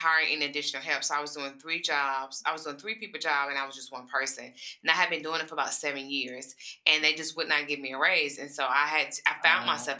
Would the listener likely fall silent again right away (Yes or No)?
Yes